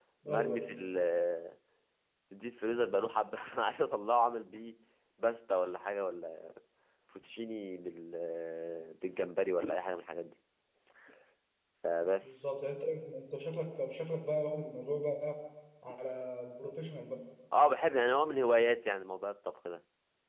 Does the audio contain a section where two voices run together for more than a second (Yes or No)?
No